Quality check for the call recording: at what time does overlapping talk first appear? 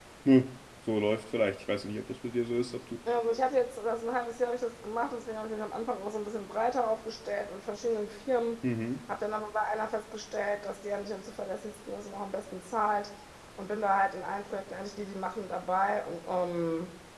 none

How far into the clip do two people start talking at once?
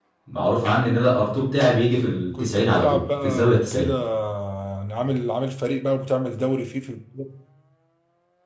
2 s

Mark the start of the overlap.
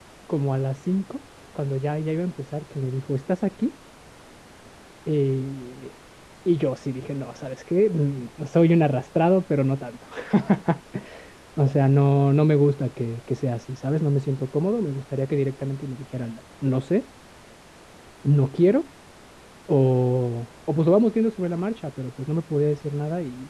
none

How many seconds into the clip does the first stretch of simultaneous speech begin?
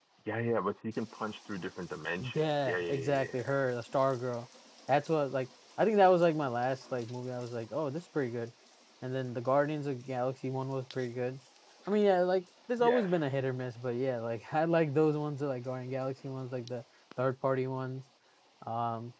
2 s

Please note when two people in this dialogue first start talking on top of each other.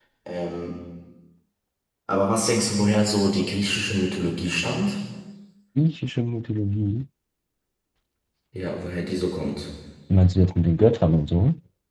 none

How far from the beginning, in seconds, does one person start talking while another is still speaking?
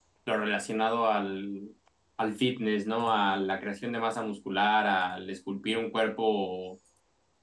none

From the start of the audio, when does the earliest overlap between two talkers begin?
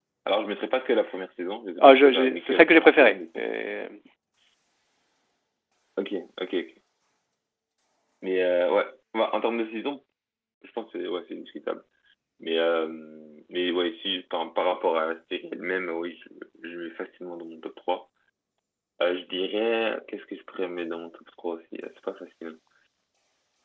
2 s

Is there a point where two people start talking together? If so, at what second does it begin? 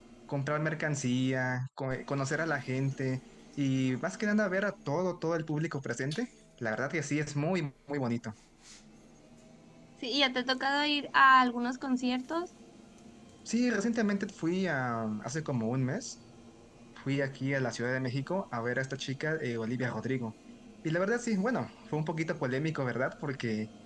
none

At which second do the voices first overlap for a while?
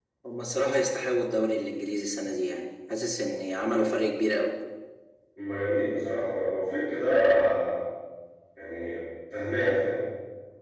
none

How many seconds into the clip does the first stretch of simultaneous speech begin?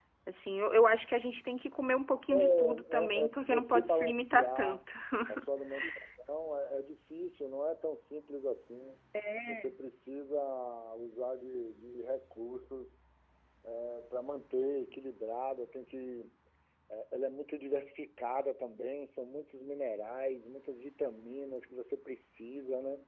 2 s

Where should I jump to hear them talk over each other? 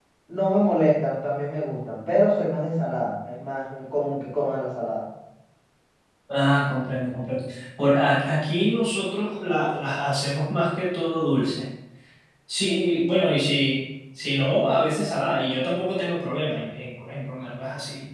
none

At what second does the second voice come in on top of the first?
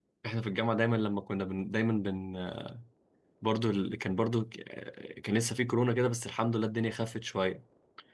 none

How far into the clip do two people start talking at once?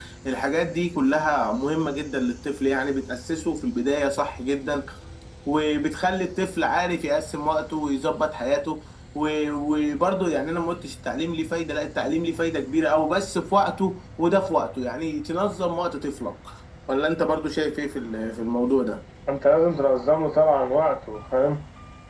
none

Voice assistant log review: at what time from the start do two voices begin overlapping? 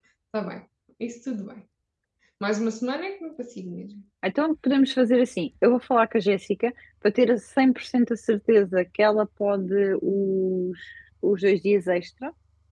none

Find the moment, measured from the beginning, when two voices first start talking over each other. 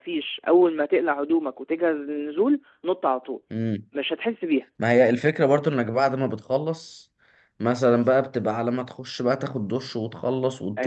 none

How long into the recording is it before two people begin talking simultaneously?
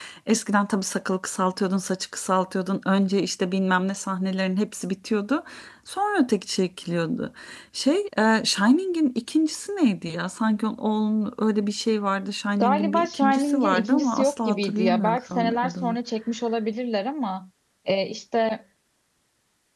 13 s

